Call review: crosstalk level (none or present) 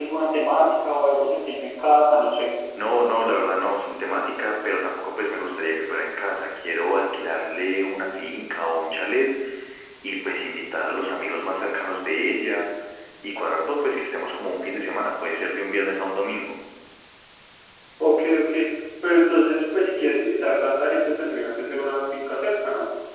none